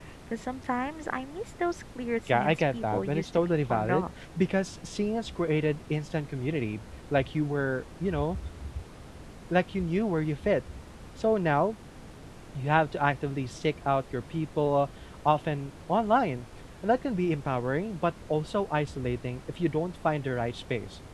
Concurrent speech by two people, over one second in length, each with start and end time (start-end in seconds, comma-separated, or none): 2.3-4.1